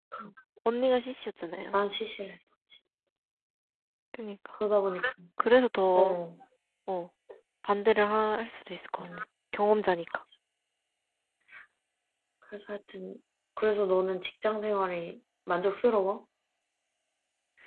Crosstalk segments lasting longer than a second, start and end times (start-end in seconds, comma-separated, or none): none